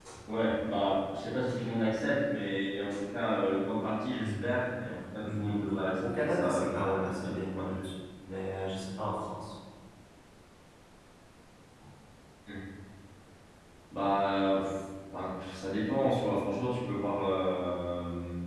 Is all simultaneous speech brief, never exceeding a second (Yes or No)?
No